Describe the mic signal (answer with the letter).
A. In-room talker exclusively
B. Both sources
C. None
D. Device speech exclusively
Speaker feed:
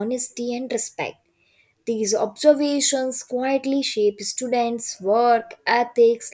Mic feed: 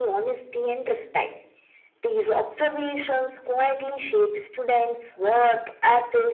D